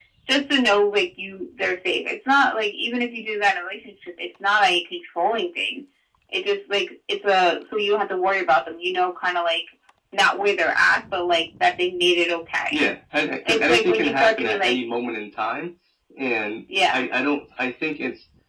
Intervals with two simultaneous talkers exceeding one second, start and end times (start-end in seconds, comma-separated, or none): 13.5-14.8